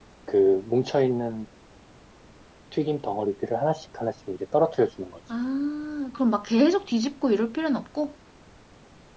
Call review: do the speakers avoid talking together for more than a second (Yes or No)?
Yes